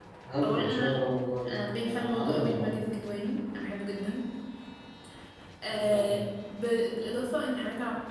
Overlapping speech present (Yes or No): Yes